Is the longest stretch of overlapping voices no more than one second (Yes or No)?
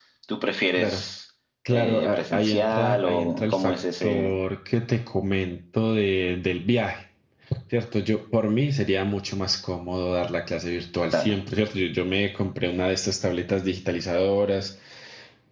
No